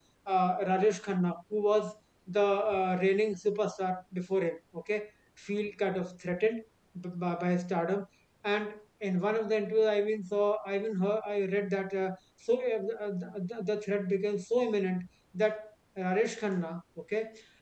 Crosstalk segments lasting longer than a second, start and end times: none

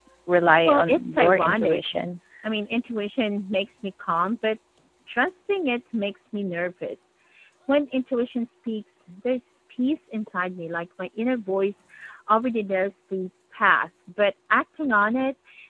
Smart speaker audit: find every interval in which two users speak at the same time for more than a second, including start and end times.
0.7-1.9

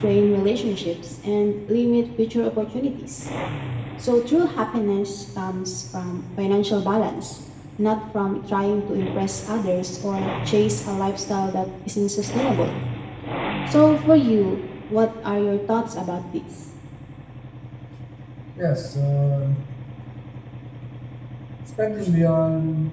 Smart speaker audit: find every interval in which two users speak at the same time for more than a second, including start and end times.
none

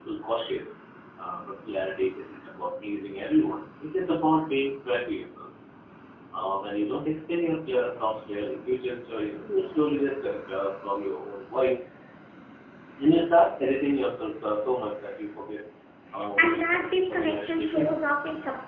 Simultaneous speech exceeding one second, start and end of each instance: 16.4-18.0

